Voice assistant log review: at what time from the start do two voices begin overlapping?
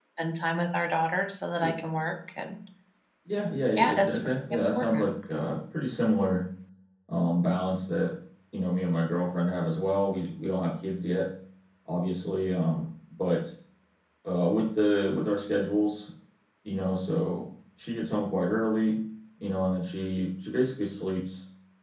3.8 s

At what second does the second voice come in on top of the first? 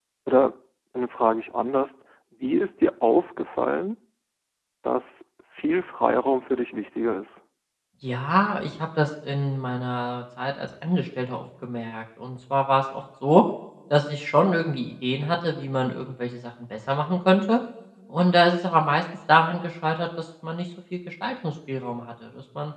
none

